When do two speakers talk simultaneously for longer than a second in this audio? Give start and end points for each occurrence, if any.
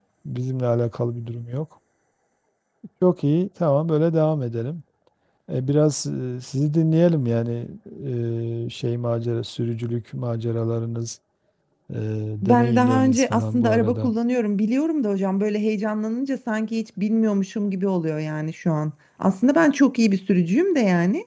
12.4-14.1

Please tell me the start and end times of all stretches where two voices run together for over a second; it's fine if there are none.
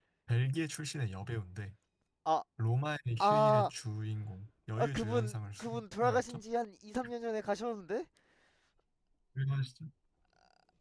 4.8-6.4

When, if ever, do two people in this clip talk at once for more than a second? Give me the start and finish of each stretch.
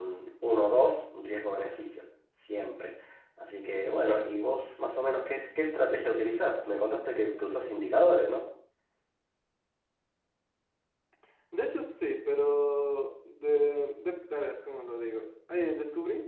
none

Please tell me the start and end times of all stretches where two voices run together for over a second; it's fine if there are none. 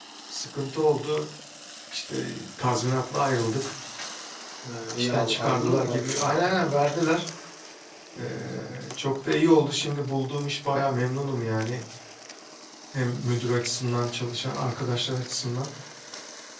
5.0-6.6

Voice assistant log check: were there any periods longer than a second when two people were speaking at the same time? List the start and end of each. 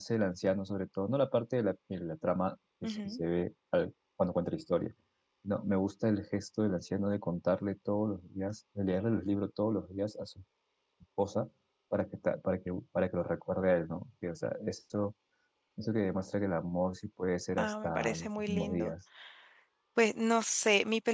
17.6-18.9

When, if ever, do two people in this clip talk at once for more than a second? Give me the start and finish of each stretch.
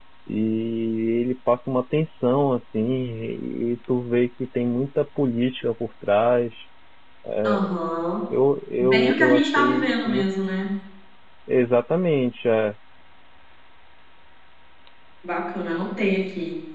8.8-10.2

